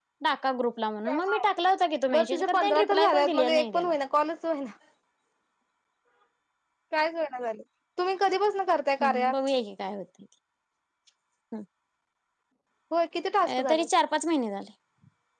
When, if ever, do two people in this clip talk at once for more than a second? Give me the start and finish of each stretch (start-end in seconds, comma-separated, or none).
2.1-3.9